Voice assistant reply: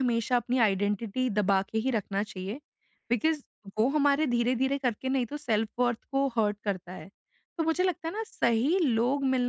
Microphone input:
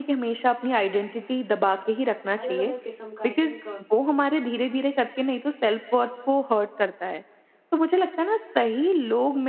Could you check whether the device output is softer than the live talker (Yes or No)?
No